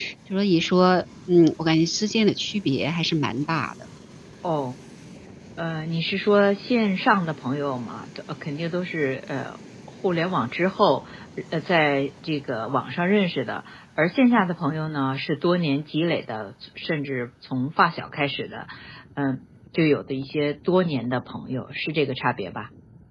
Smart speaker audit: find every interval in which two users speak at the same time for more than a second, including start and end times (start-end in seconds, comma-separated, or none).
none